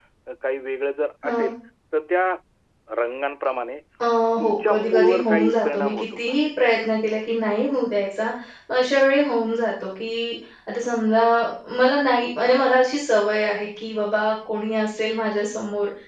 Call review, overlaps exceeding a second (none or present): present